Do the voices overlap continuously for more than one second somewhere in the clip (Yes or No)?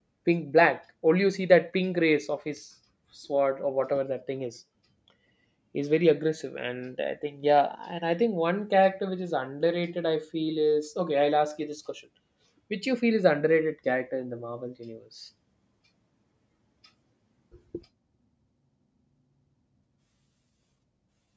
No